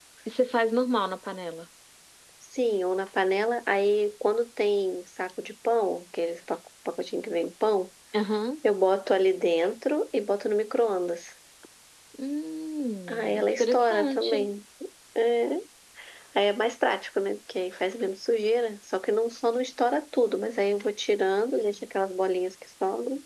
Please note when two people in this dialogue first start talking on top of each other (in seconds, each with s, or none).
13.1 s